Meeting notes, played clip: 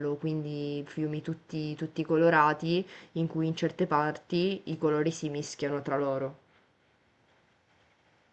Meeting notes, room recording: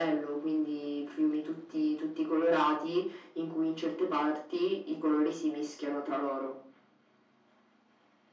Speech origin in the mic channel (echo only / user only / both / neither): echo only